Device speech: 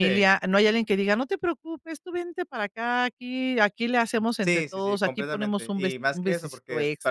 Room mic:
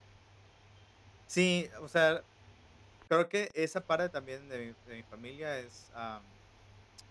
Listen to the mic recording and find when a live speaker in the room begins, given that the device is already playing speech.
1.3 s

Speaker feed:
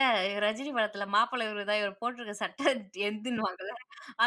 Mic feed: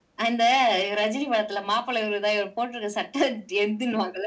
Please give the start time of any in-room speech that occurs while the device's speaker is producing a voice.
none

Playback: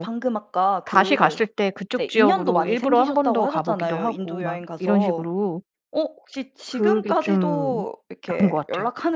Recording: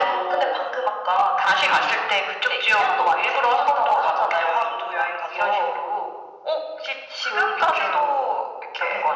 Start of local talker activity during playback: none

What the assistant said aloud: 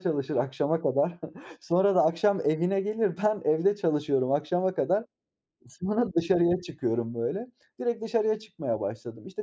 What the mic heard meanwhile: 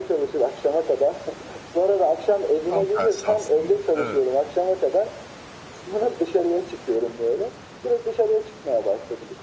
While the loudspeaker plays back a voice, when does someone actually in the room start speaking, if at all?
2.7 s

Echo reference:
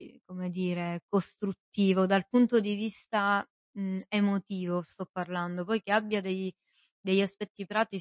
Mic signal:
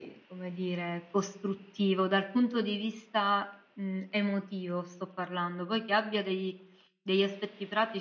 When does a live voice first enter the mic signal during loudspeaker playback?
none

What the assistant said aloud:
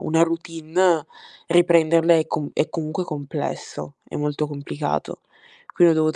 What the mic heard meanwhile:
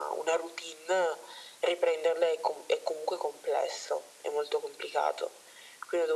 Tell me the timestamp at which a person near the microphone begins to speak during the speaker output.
none

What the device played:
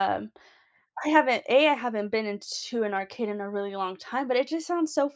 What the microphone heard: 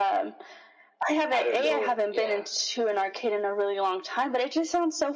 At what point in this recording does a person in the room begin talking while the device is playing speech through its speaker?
1.3 s

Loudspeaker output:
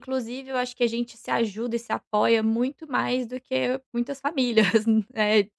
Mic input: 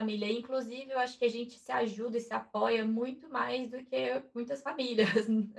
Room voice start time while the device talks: none

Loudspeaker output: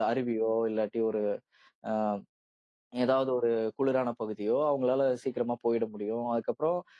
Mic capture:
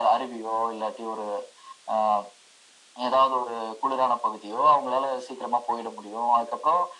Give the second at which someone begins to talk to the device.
none

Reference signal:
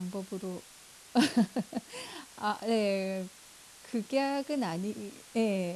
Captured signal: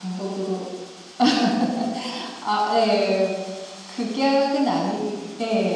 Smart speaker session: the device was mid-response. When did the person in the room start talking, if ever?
none

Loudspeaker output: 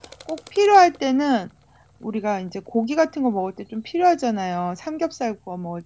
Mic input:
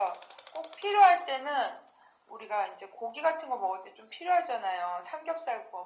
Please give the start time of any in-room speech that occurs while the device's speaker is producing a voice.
none

